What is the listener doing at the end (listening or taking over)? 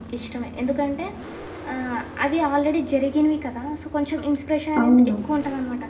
listening